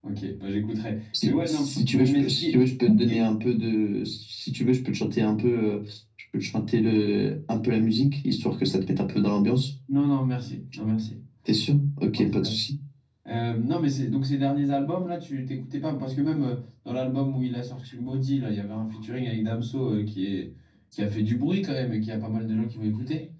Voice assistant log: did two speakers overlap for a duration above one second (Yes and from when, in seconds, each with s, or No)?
Yes, from 1.2 s